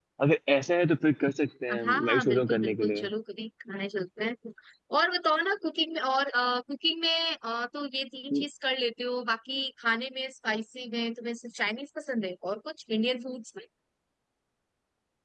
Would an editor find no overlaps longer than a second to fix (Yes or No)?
No